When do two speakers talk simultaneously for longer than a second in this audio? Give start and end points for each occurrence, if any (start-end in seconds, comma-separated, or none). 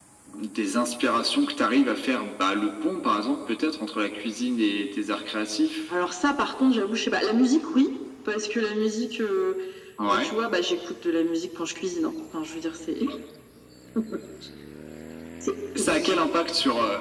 none